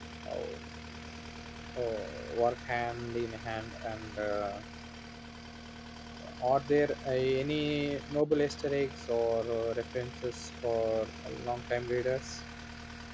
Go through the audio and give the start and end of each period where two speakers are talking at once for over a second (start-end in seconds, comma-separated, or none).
none